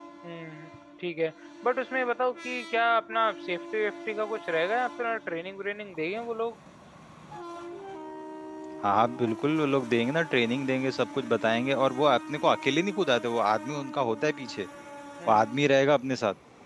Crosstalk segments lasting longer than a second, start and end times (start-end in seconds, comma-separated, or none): none